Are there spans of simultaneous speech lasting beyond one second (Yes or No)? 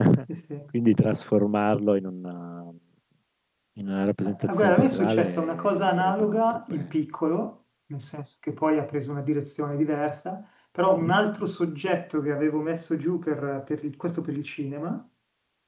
Yes